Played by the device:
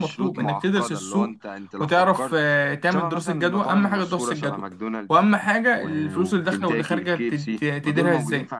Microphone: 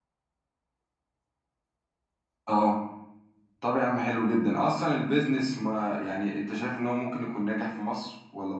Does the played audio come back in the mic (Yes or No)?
No